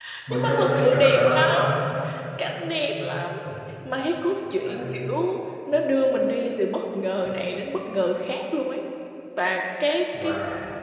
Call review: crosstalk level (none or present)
present